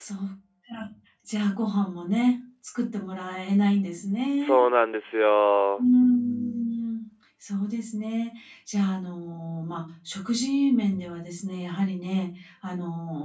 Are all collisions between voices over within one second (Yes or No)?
Yes